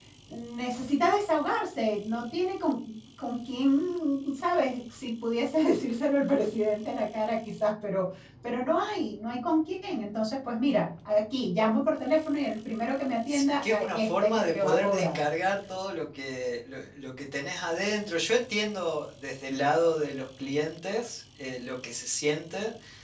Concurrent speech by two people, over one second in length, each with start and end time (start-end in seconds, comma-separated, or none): 13.3-15.2